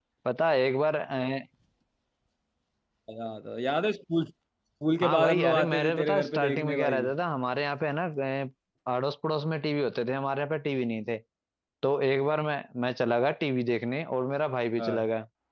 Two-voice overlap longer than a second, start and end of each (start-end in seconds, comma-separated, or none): 5.0-7.0